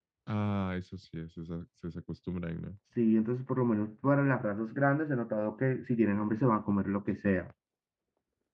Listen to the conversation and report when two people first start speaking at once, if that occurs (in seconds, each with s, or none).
none